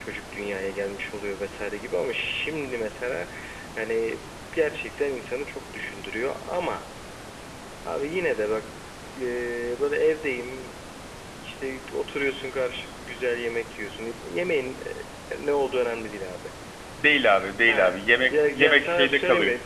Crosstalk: present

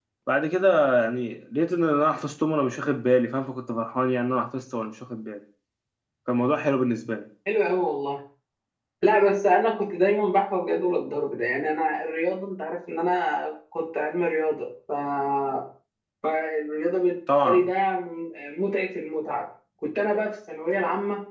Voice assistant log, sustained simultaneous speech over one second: none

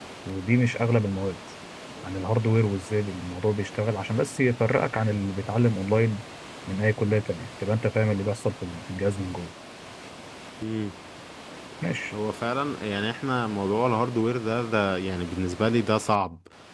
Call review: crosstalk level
none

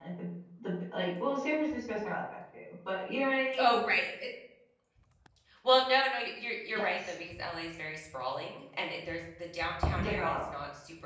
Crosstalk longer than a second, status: none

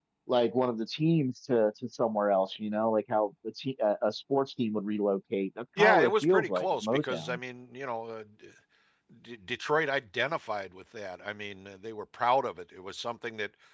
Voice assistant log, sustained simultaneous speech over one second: present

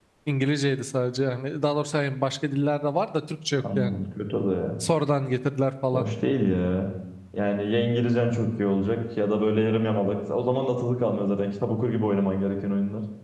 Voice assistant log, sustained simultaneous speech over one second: none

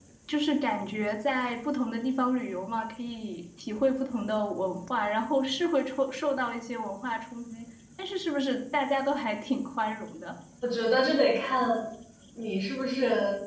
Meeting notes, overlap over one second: none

